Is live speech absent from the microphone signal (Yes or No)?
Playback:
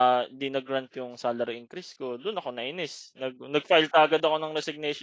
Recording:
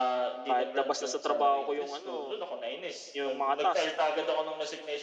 No